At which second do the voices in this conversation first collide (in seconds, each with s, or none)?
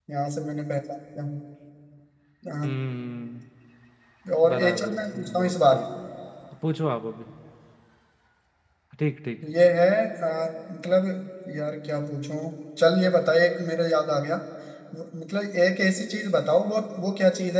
4.5 s